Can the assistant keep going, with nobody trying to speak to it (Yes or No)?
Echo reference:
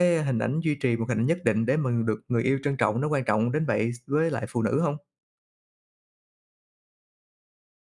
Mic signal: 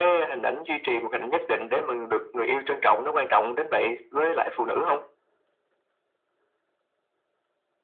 Yes